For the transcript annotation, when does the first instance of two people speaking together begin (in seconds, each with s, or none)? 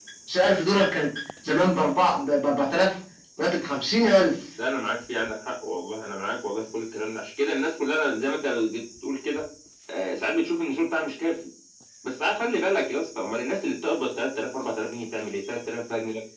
none